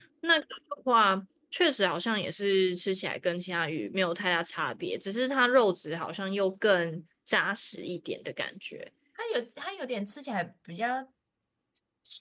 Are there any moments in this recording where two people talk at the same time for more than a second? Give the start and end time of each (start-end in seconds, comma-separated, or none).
none